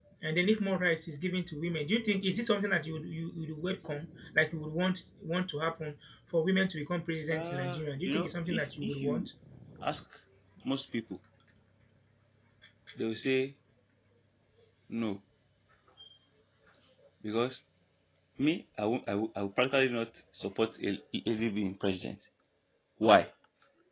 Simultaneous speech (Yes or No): Yes